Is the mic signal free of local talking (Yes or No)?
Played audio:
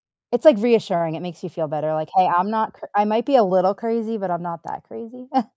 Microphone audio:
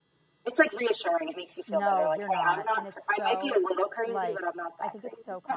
No